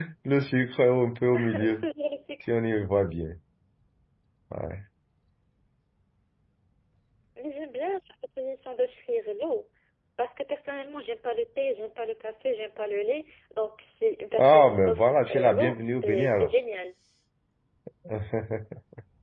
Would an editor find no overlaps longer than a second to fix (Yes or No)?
No